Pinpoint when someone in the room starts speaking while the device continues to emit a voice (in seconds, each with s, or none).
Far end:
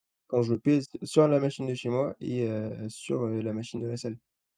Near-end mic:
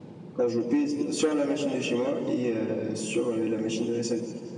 none